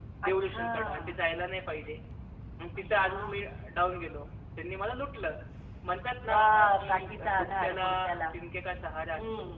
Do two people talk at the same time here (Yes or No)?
Yes